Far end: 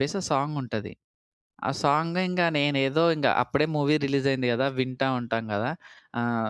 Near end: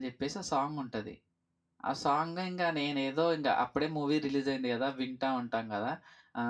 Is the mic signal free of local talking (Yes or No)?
Yes